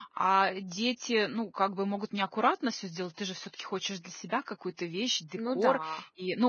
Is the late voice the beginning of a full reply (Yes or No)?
No